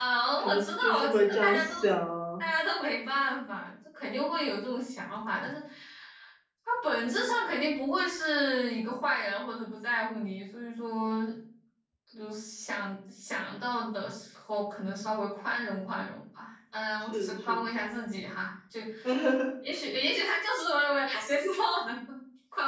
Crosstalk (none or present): present